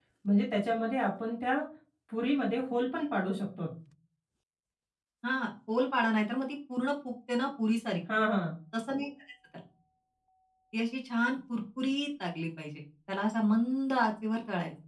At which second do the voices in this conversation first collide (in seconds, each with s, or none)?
none